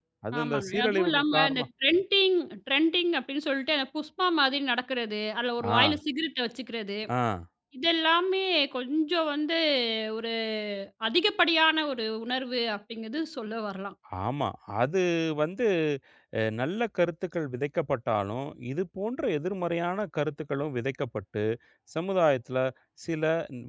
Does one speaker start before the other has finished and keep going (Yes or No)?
Yes